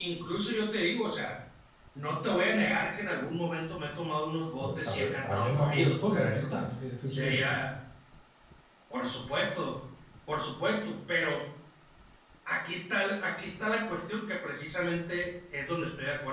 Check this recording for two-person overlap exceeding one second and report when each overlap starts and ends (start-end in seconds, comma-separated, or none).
4.8-6.6